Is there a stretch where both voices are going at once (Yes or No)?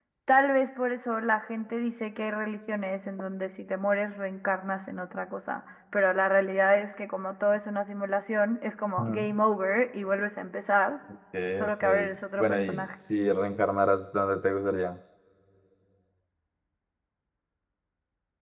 Yes